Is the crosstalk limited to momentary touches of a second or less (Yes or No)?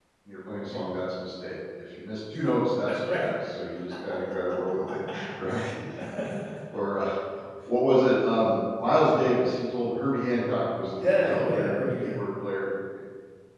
No